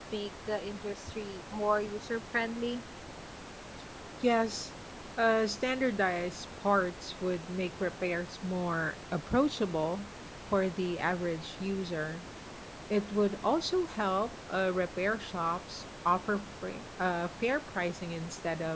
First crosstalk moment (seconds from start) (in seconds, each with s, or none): none